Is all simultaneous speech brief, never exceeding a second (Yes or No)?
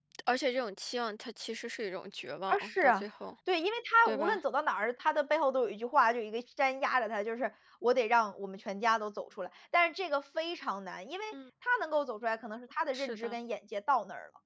Yes